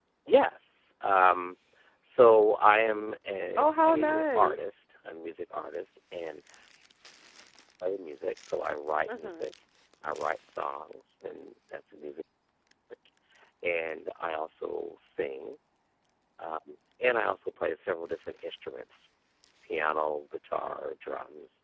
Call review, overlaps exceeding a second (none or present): present